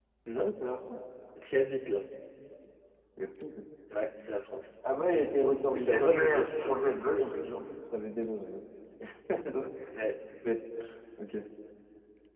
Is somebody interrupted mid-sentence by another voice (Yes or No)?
Yes